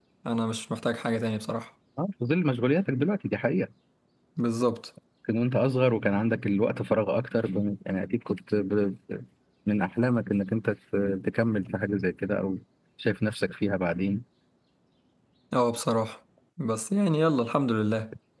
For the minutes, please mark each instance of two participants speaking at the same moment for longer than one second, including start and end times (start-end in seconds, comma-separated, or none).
none